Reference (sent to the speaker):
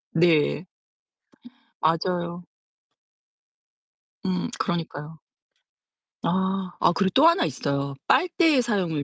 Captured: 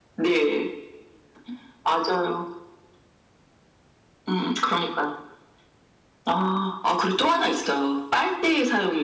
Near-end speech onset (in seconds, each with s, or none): none